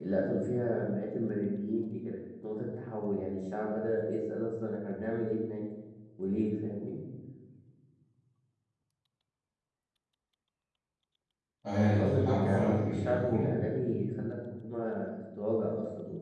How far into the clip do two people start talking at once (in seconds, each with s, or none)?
12.0 s